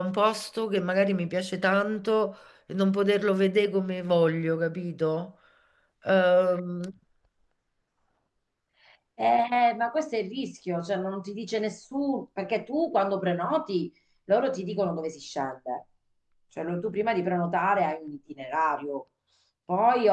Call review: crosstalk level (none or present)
none